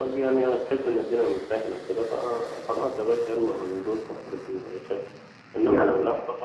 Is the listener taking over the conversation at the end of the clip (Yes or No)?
No